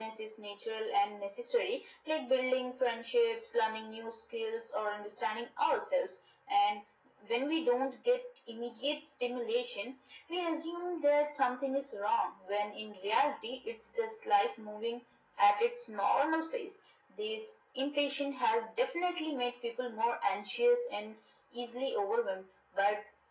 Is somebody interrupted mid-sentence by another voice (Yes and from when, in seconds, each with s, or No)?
No